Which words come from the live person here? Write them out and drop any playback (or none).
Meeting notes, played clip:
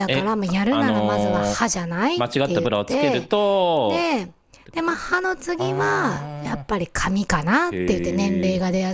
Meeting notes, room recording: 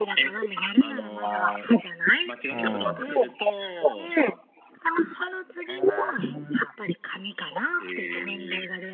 うん。